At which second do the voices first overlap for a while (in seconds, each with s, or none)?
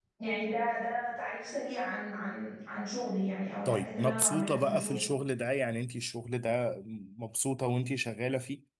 3.6 s